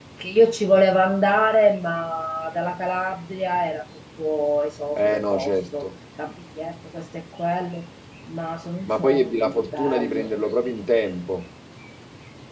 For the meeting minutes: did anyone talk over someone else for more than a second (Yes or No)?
Yes